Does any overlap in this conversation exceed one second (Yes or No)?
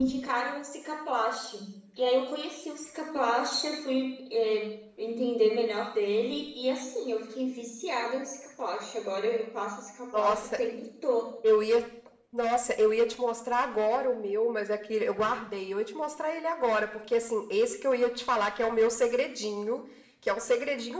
No